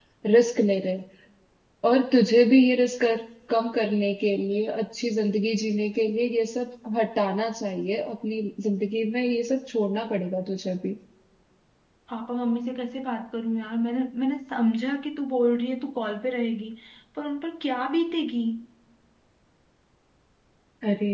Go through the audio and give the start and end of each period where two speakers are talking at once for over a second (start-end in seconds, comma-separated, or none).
none